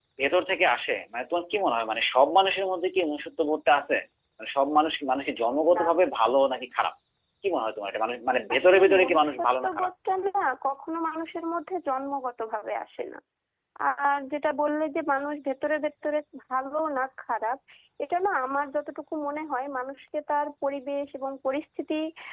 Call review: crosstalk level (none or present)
present